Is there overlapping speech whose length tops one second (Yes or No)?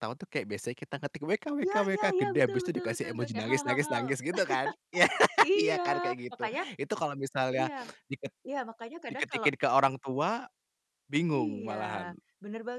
Yes